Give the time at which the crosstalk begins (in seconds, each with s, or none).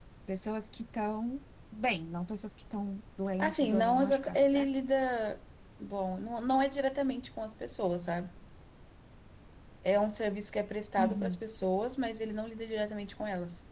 3.4 s